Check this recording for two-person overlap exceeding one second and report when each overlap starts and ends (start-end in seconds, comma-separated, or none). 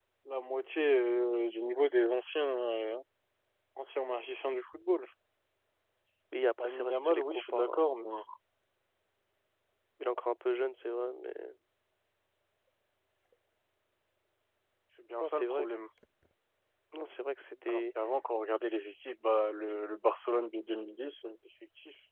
6.6-7.8